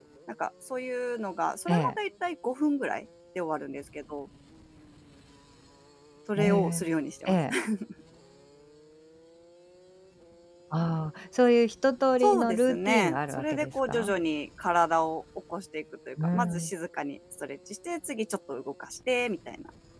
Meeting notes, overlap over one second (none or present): present